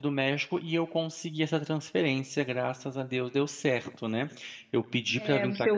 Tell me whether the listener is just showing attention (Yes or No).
No